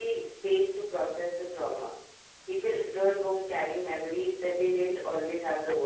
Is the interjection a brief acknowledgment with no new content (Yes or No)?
No